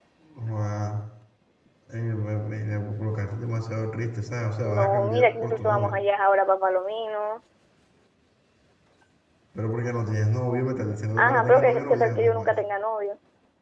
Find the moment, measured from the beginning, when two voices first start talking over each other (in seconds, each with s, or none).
4.6 s